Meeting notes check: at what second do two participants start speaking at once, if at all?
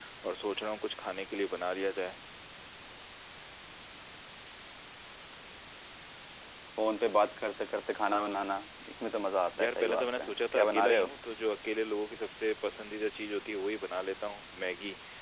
9.6 s

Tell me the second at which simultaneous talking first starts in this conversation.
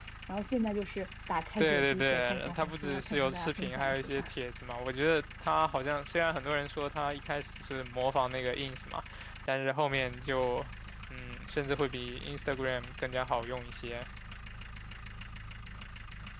1.6 s

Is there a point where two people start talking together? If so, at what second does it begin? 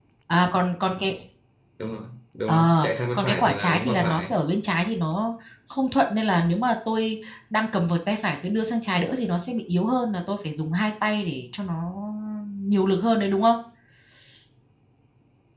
2.5 s

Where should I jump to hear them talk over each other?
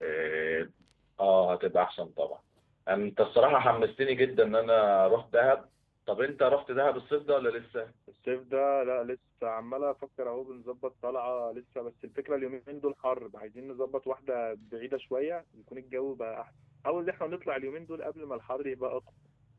none

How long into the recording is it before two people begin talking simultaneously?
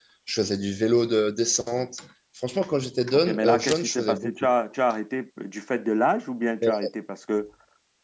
3.1 s

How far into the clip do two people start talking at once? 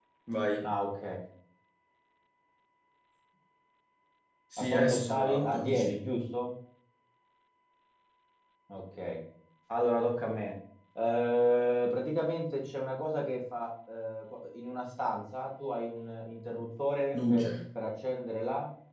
4.6 s

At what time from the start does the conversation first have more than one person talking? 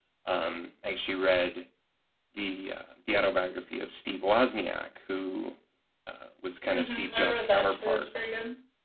6.7 s

